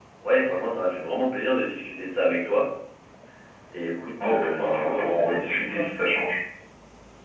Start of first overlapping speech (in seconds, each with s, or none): 4.2 s